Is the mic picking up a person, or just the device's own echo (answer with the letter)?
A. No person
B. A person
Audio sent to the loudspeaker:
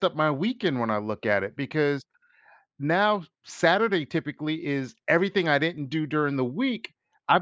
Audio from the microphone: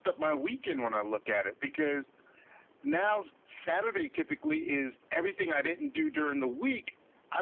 A